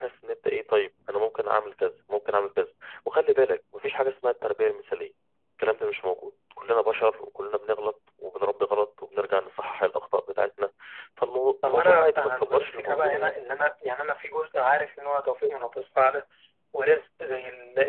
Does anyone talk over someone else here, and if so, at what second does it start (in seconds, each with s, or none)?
11.6 s